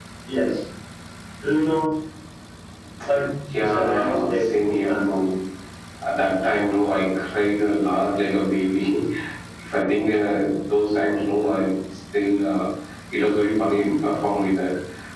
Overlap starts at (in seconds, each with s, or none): 3.6 s